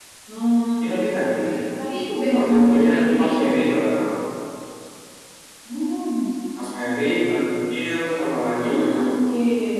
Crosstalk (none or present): present